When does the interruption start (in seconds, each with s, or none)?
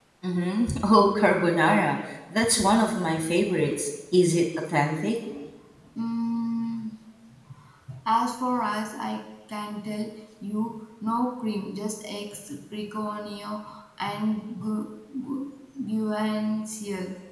none